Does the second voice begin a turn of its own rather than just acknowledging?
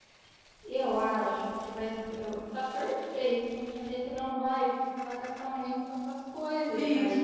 Yes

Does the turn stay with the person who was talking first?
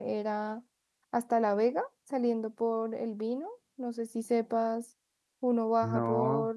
Yes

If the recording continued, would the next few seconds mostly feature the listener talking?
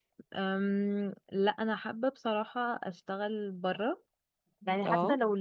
No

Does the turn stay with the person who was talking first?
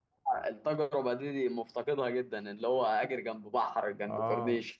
No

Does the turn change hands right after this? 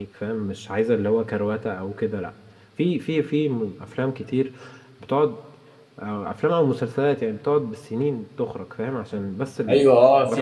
Yes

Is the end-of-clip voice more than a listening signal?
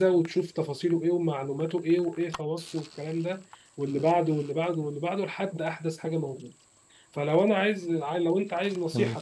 No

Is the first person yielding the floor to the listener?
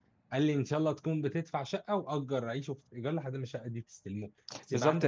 Yes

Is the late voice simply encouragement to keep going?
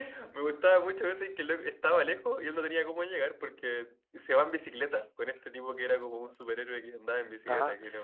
No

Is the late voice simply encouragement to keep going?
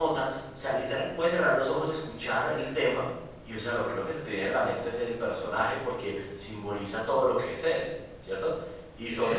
Yes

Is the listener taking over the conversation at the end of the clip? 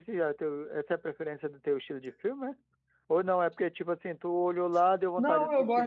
Yes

